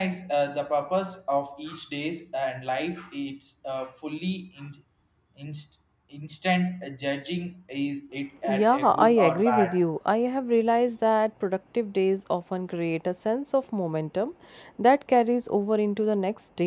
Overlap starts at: 8.4 s

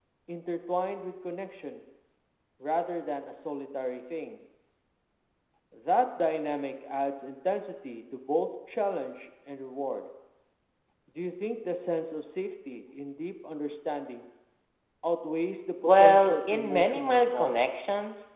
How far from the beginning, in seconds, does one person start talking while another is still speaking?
15.8 s

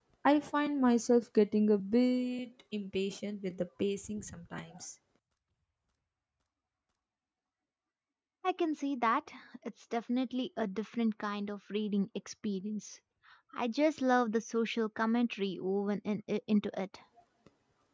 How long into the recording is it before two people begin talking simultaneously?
none

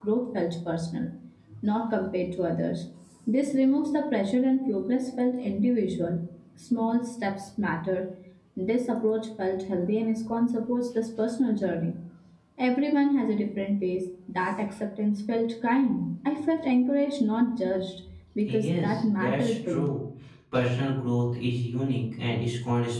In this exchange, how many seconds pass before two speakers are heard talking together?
18.4 s

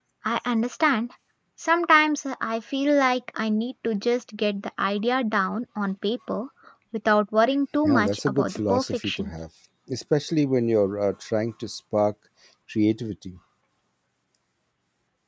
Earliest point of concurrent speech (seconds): 7.8 s

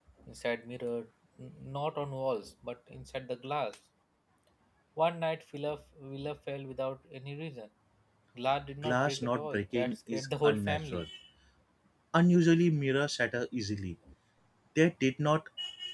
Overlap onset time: 8.8 s

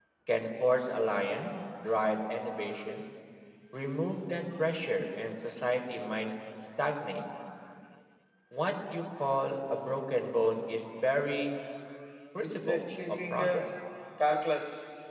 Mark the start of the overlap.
12.4 s

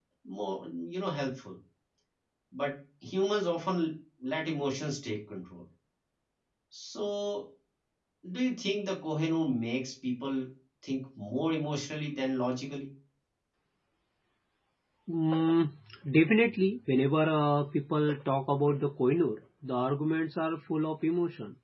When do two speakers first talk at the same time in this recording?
none

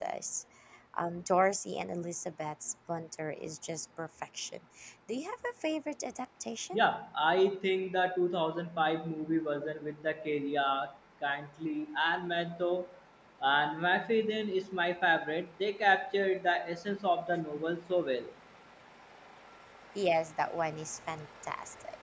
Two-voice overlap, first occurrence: none

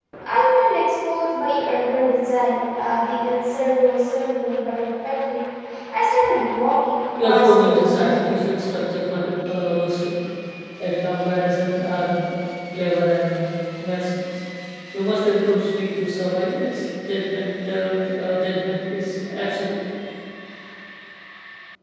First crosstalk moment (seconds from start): 7.2 s

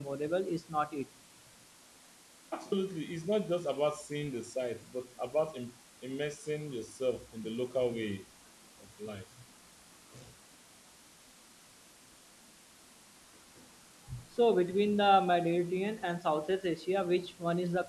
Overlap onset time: none

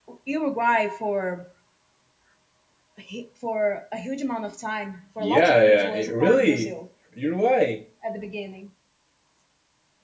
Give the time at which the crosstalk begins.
5.2 s

